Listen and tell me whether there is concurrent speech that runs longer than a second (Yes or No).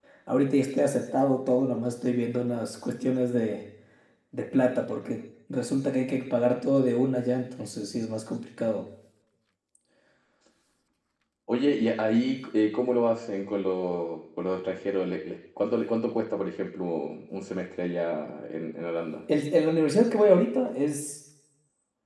No